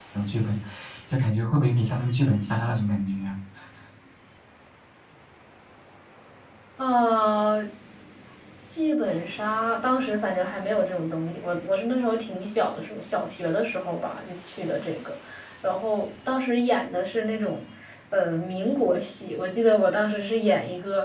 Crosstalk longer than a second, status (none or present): none